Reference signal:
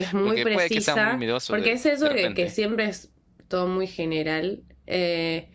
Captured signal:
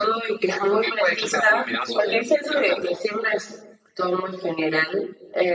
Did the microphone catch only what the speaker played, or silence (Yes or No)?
Yes